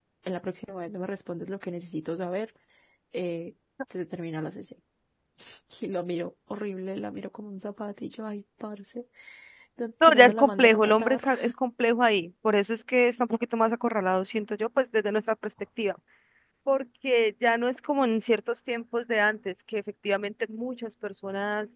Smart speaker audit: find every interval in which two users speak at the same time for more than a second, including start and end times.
10.0-11.2

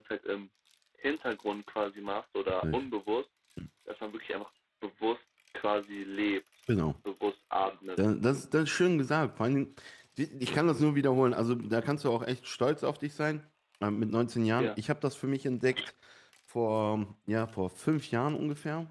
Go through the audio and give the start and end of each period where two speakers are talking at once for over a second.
none

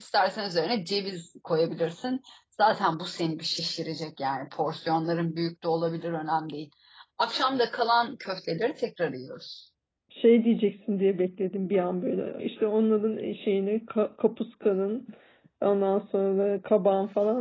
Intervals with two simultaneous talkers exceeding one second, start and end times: none

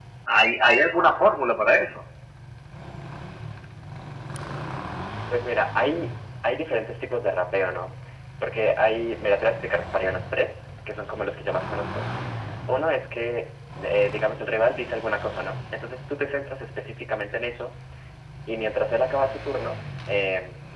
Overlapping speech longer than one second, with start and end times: none

